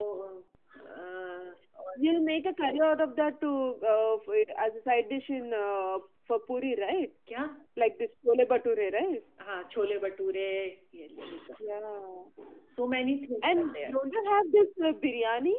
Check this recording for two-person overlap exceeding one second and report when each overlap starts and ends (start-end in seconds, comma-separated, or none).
none